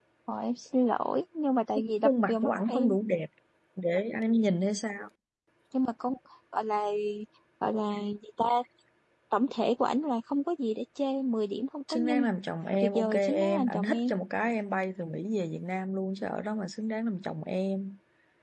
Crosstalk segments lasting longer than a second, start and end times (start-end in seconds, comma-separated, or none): 1.8-3.0, 12.8-14.1